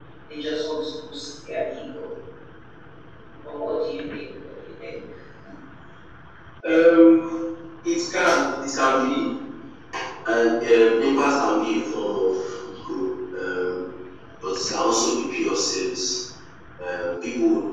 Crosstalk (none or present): none